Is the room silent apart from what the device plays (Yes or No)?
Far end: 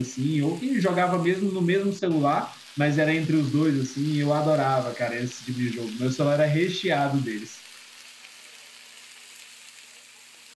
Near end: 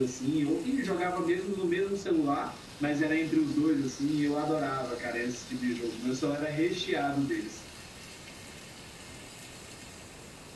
Yes